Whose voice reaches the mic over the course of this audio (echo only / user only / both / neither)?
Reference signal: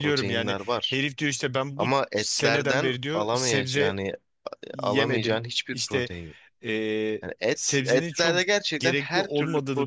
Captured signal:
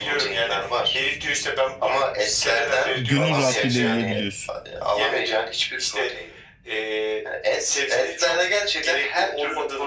both